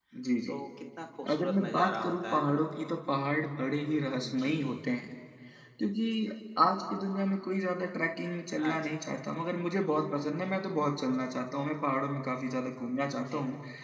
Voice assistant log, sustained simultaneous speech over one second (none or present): present